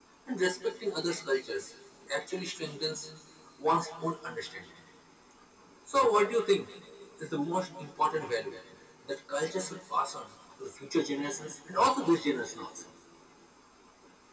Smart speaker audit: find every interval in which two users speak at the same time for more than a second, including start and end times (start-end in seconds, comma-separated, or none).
none